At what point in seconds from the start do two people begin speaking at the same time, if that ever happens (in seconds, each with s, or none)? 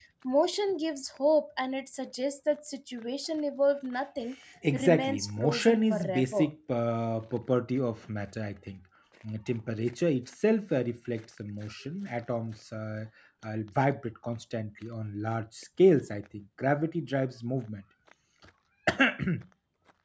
4.7 s